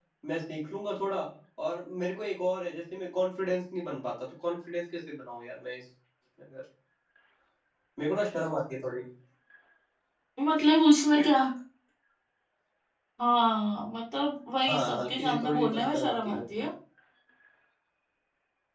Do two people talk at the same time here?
Yes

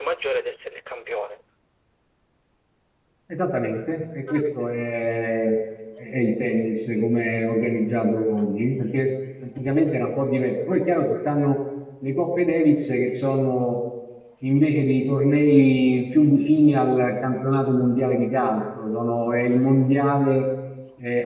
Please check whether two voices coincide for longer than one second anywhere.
No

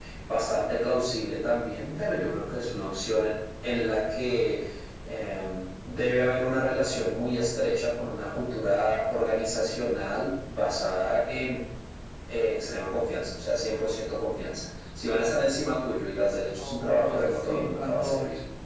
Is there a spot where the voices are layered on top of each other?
Yes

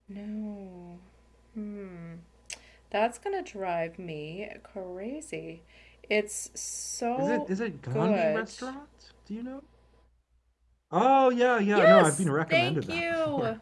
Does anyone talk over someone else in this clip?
Yes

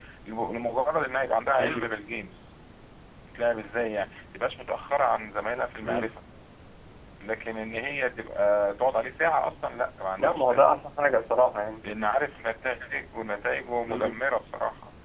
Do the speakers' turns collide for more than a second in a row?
No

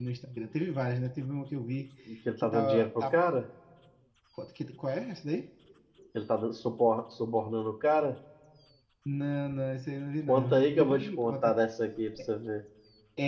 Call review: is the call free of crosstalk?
No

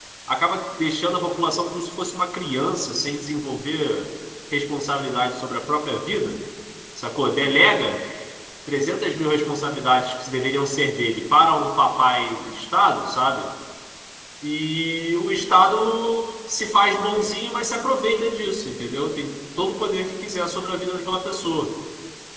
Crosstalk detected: No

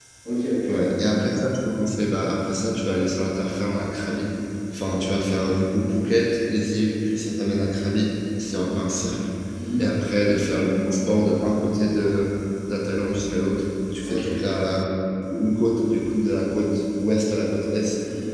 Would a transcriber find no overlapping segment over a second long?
Yes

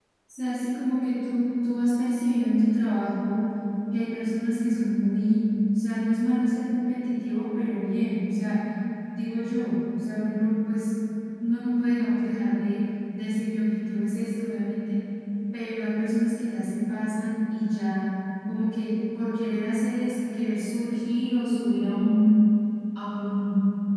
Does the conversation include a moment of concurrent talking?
No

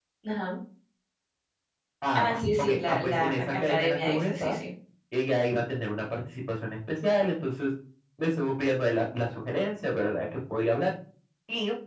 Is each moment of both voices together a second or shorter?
No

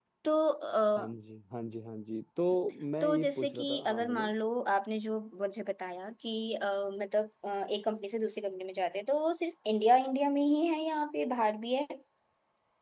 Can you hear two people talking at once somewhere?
Yes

